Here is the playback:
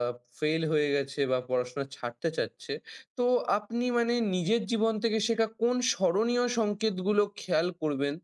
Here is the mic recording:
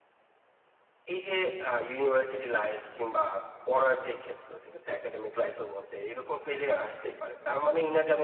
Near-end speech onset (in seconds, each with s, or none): 1.1 s